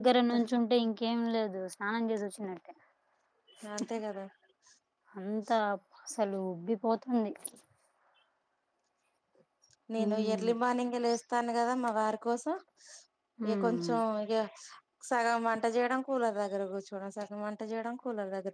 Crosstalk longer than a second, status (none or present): none